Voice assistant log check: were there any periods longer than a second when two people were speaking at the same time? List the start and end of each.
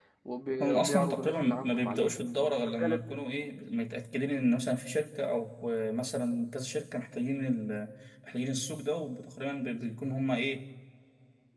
0.6-3.2

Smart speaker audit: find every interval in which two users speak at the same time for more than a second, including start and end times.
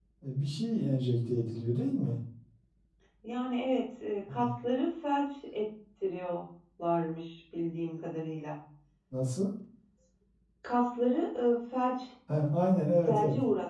none

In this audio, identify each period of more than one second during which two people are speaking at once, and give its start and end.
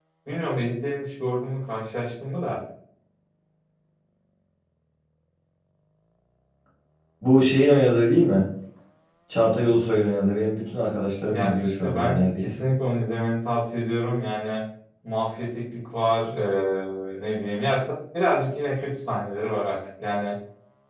11.3-12.6

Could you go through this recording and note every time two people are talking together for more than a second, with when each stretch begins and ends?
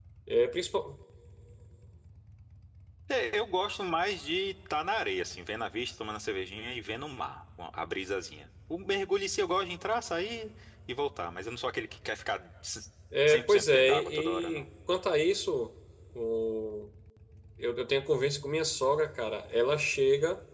13.3-14.7

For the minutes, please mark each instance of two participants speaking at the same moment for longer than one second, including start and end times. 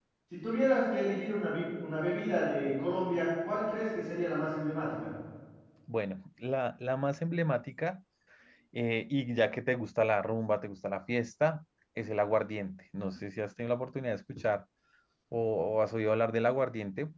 none

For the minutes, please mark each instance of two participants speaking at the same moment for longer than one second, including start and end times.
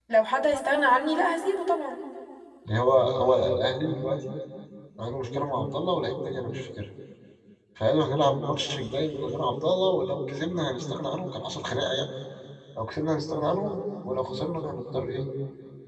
none

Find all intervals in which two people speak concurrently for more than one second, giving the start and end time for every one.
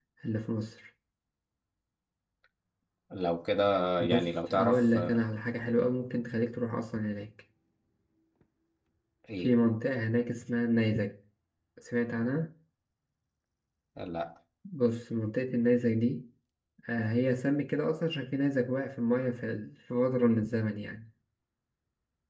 4.0-5.2

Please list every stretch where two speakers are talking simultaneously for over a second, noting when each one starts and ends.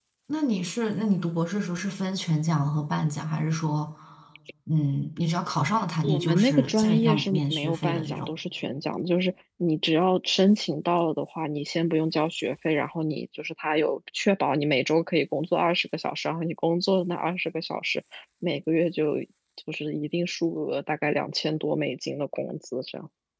6.0-8.3

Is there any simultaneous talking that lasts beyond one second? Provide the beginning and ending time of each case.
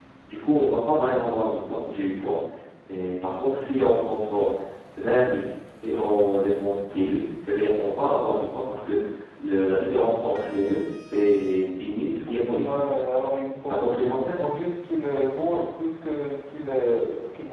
none

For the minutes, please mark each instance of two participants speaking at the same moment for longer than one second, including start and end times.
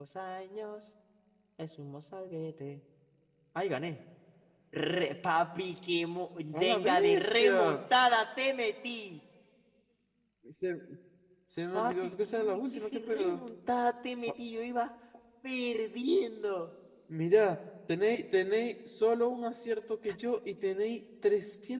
6.5-7.8, 11.7-13.4

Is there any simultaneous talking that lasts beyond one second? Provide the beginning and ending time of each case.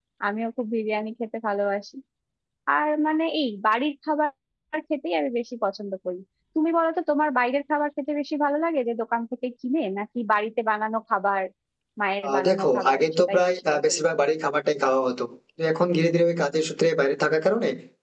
12.3-14.1

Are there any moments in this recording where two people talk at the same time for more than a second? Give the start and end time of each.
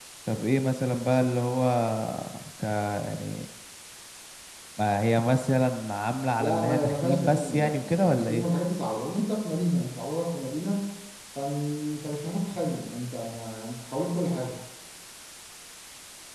6.4-8.4

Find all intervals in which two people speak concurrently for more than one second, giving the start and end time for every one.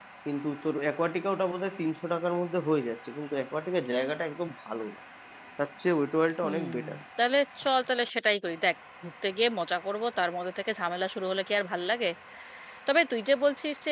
none

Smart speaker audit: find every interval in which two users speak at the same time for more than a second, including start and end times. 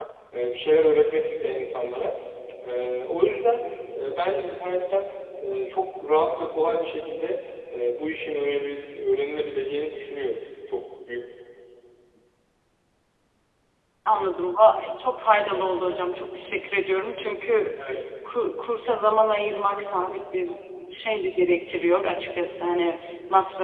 none

